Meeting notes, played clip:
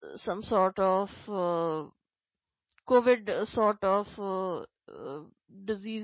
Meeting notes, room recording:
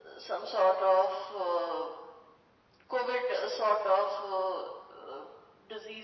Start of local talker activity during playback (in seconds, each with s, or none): none